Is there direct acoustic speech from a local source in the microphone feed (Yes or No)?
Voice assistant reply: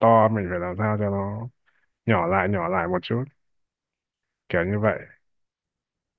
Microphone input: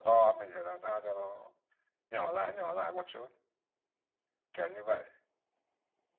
No